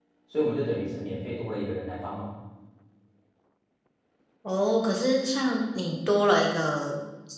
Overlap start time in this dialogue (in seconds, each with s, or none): none